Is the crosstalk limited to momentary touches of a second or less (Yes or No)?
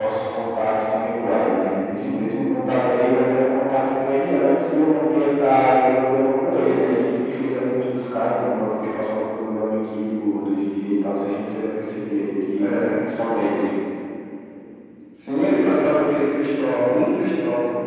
Yes